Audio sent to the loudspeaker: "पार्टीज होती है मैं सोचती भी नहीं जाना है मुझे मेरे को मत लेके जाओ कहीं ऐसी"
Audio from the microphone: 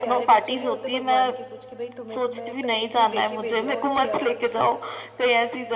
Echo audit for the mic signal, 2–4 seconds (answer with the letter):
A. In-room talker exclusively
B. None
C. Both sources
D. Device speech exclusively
C